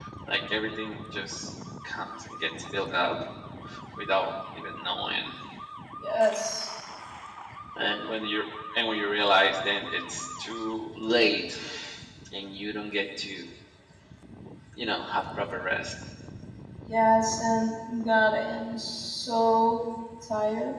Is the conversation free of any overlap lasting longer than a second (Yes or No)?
Yes